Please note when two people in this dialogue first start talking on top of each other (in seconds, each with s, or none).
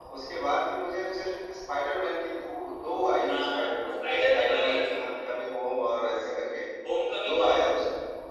3.2 s